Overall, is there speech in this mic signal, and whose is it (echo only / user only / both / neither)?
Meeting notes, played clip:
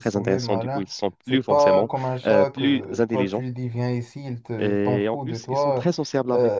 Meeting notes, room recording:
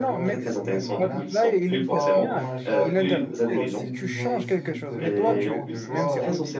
both